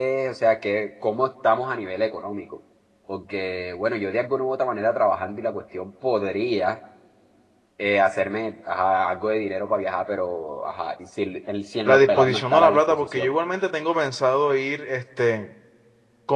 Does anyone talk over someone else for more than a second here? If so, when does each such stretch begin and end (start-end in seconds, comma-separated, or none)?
11.9-13.3